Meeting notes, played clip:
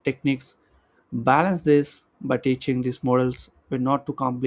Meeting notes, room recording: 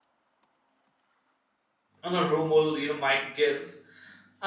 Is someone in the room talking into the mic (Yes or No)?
Yes